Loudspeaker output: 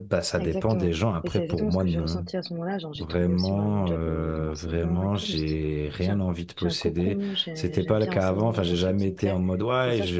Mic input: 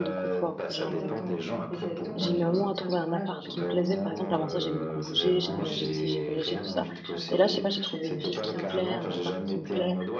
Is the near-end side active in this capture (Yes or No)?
Yes